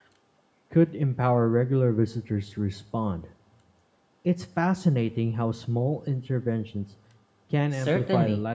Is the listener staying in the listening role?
No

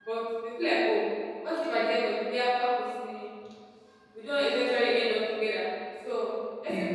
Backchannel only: Yes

